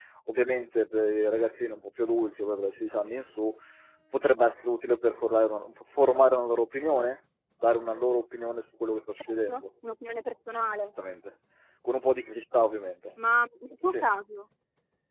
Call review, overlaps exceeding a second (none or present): none